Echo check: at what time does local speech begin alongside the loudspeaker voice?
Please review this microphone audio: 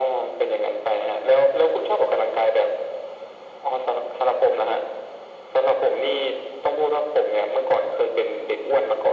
none

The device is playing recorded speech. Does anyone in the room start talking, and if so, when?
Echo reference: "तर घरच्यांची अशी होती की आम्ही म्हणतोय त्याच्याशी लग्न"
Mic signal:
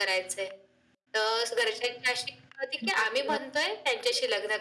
2.8 s

